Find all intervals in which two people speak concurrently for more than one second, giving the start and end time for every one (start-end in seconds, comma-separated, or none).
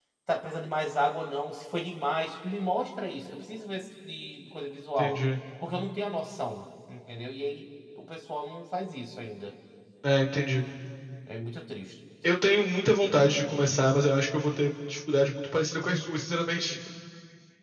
none